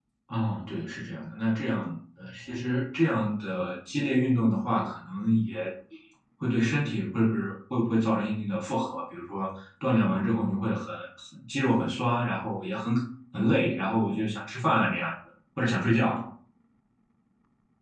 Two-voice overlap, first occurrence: none

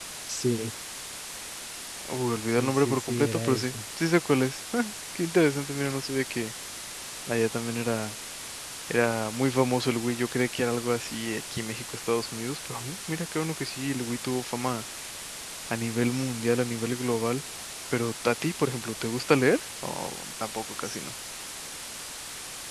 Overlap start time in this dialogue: 3 s

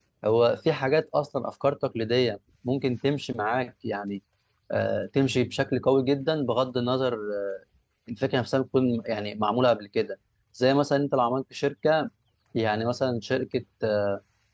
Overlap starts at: none

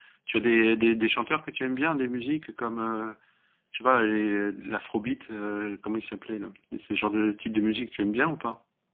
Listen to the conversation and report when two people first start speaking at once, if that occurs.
none

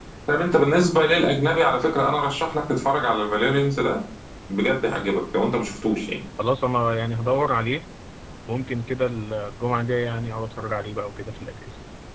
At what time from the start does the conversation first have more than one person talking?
none

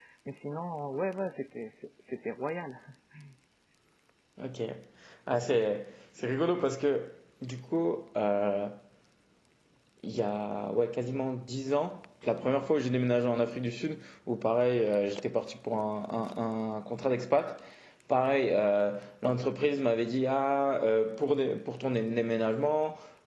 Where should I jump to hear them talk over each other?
none

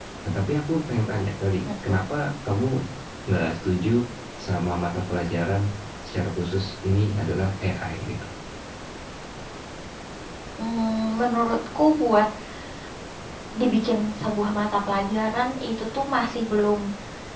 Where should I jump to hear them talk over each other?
none

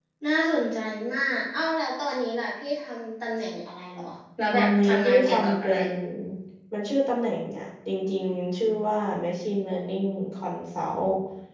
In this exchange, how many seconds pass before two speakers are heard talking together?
5 s

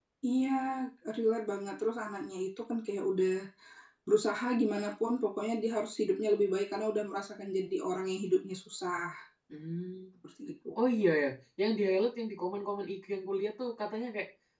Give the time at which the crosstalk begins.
none

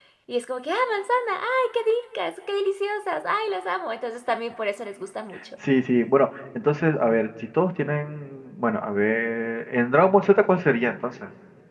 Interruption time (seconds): none

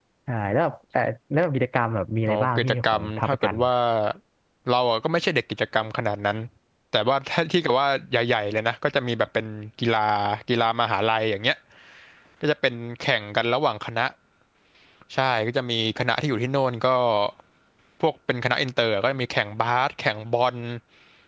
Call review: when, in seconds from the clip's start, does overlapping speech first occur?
2 s

